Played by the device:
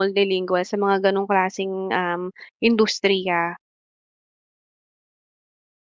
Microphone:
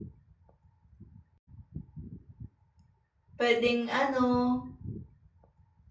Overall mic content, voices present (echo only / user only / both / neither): user only